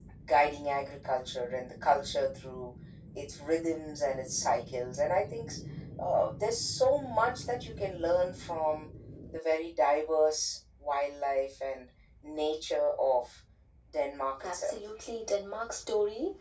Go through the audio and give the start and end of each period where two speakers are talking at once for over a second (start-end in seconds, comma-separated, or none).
none